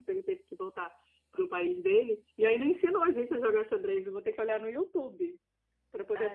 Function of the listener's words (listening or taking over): taking over